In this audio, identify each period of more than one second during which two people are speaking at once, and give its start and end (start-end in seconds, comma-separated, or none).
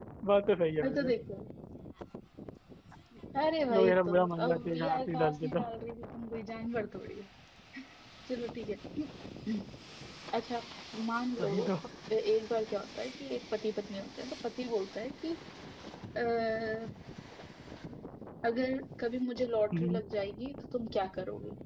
3.7-5.6